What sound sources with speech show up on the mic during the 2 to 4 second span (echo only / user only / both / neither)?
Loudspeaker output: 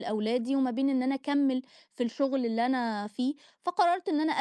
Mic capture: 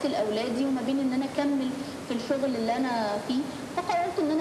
echo only